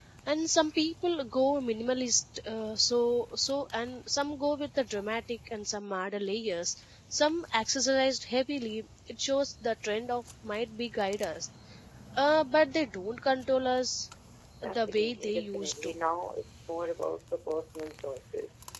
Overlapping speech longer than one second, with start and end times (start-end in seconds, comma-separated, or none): 14.6-15.9